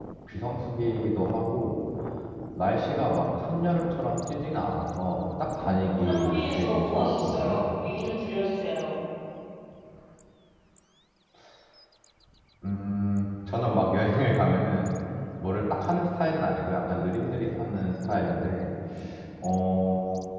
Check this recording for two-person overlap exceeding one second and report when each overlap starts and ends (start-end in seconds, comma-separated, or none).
5.7-7.6